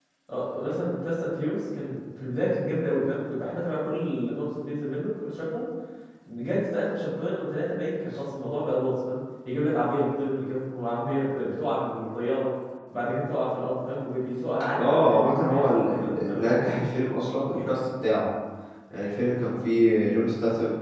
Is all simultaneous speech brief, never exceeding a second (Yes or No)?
No